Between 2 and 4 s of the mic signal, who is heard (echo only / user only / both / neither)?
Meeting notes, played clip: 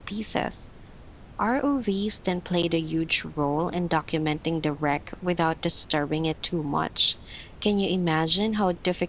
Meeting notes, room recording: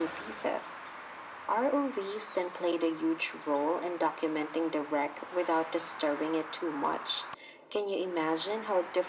echo only